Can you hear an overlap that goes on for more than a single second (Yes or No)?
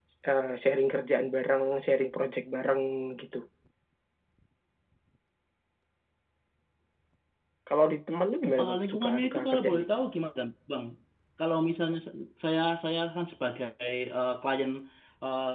Yes